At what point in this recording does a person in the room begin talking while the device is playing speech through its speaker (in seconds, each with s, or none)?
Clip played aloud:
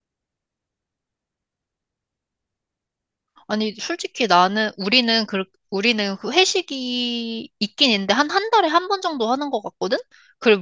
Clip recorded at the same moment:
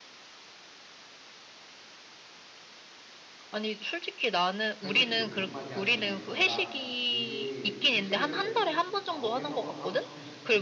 4.8 s